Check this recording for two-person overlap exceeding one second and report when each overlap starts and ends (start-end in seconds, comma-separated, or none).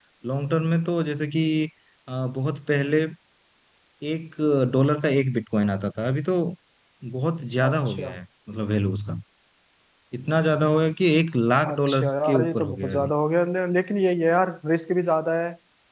11.7-13.1